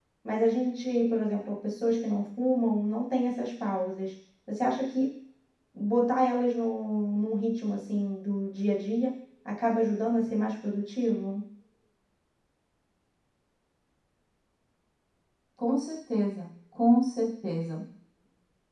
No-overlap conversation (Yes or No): Yes